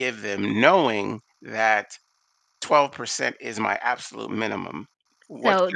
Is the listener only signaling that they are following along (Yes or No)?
No